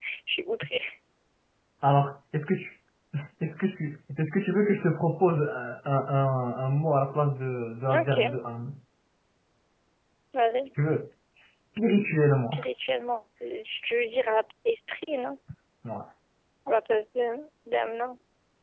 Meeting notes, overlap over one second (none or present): none